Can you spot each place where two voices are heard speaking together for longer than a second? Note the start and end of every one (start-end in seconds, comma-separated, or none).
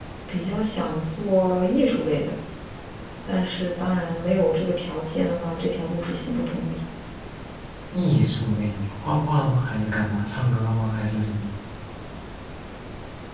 none